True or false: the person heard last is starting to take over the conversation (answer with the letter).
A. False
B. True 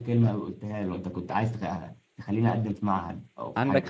B